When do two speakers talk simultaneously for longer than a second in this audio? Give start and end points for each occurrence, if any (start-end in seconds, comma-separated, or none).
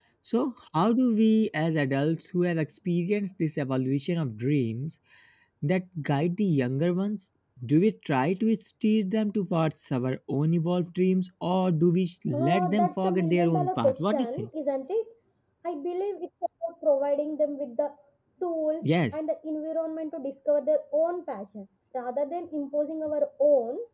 12.3-14.5